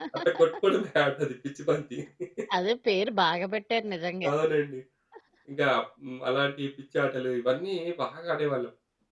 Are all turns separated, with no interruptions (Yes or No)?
Yes